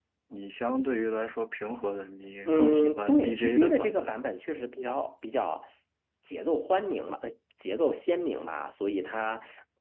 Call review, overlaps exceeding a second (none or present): present